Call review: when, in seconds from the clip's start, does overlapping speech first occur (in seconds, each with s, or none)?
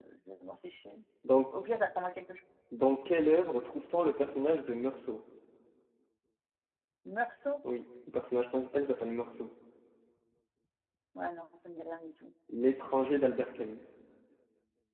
none